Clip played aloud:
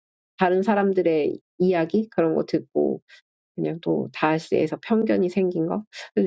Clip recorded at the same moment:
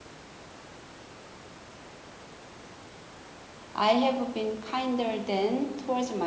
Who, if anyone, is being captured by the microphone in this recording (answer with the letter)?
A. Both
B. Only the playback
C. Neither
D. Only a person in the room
D